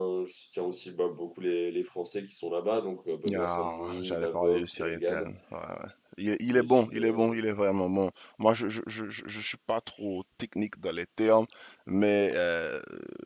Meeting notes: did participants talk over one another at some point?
Yes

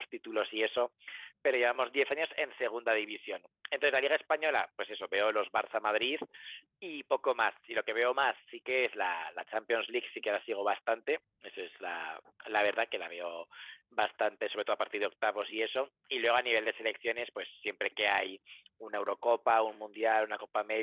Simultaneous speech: No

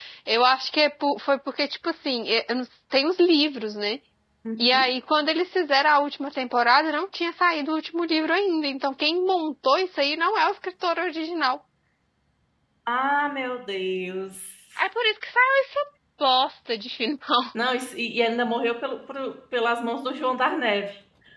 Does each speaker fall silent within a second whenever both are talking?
Yes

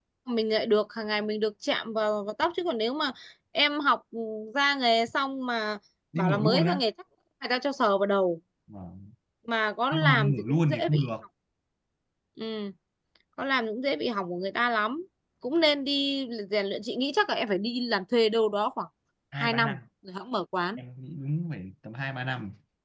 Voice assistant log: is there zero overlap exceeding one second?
No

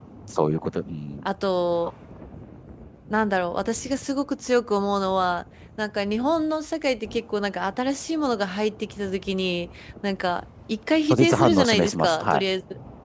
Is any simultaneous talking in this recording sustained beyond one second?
Yes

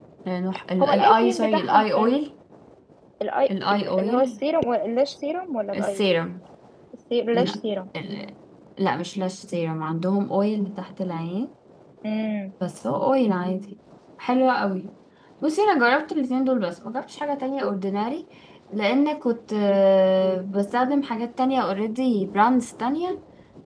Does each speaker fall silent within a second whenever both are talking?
No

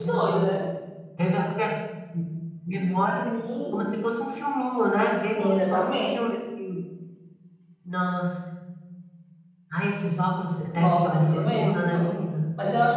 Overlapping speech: Yes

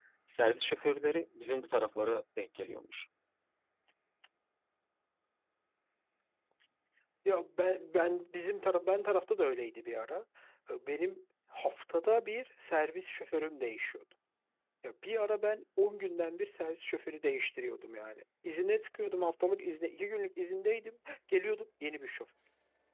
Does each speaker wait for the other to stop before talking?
Yes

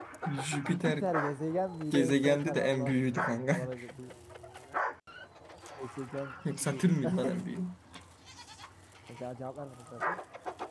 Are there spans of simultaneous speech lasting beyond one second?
Yes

